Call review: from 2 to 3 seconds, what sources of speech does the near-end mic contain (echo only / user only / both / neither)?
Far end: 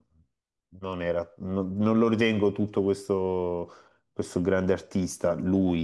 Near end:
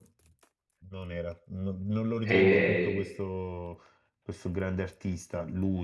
both